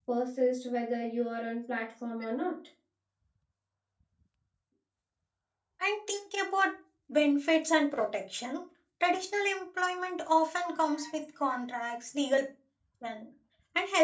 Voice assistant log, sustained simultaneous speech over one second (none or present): none